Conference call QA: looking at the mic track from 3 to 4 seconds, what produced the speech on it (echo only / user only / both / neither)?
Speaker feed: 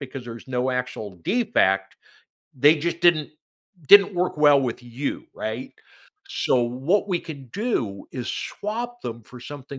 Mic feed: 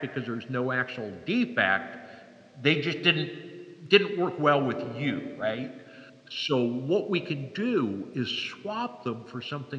echo only